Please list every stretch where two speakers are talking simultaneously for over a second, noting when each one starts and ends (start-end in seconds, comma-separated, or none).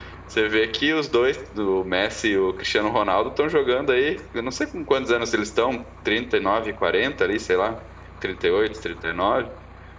none